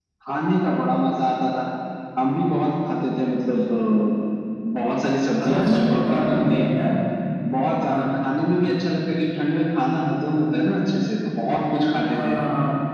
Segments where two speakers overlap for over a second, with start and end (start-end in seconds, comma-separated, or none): 5.4-6.7